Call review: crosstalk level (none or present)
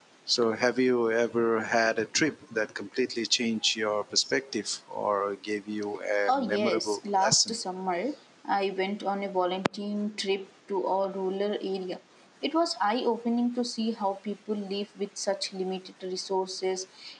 present